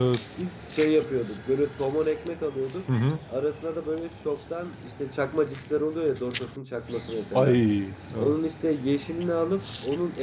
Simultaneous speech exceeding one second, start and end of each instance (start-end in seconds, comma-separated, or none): none